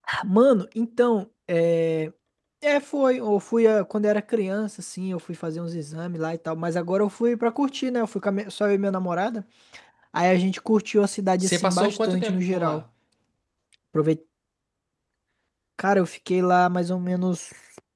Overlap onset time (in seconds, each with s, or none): 11.4 s